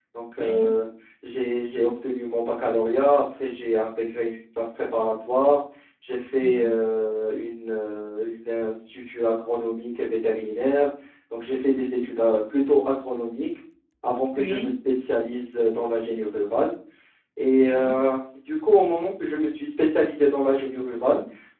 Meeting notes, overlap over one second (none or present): none